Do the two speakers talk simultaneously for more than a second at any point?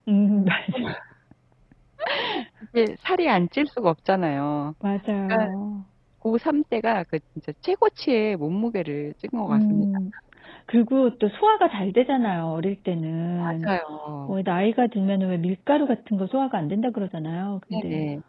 No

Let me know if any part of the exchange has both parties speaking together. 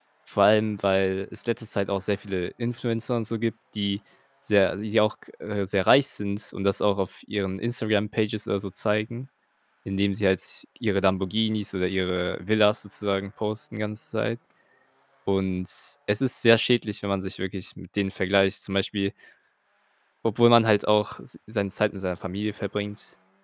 No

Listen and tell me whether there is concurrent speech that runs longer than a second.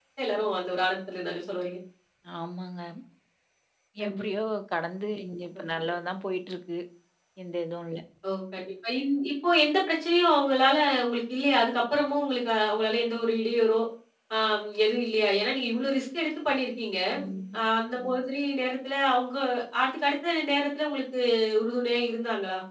No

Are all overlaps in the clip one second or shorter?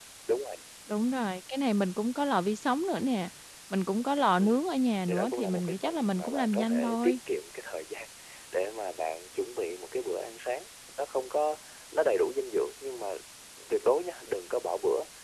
No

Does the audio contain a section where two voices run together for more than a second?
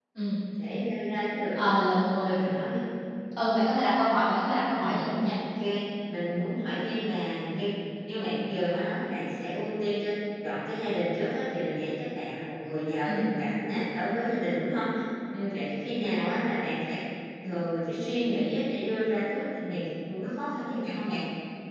No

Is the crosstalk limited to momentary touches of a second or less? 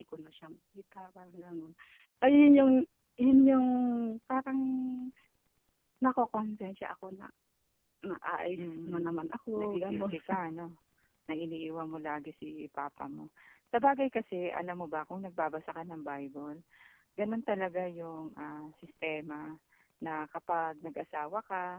No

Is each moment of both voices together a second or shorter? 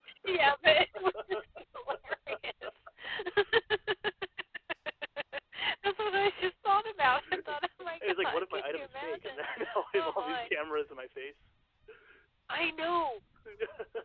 No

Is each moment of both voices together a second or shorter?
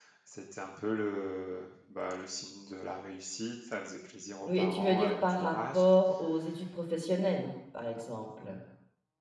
No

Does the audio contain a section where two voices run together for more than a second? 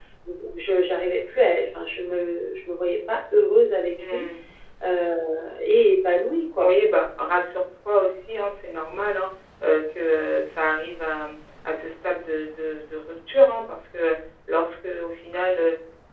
No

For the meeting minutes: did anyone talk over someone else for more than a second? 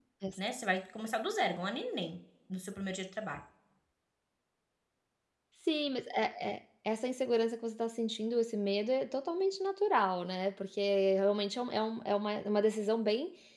No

